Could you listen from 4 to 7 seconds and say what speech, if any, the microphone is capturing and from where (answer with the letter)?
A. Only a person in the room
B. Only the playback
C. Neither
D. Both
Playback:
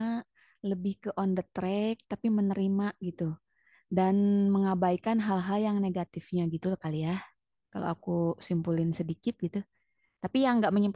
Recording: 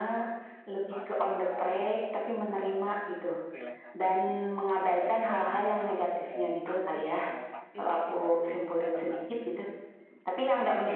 D